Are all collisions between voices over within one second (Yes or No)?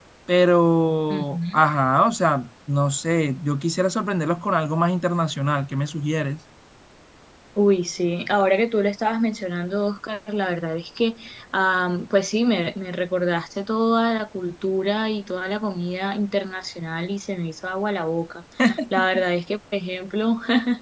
Yes